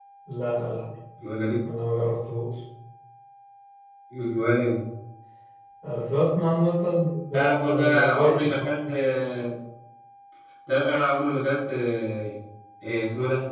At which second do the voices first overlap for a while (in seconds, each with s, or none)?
7.3 s